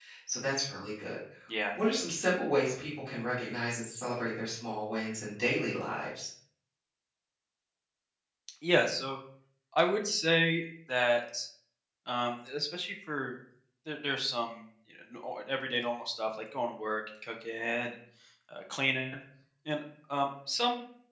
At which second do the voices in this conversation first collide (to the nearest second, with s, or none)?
none